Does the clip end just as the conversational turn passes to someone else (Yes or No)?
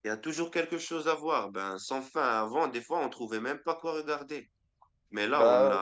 No